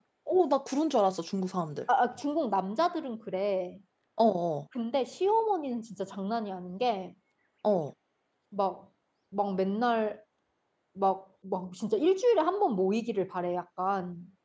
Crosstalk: none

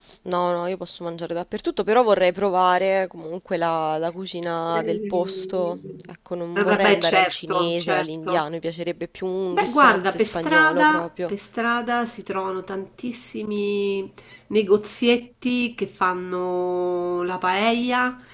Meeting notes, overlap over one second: present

